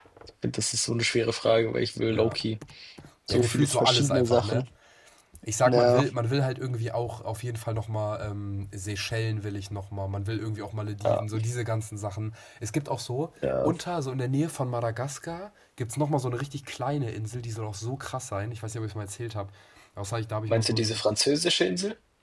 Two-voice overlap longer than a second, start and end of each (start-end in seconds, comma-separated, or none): 3.3-4.7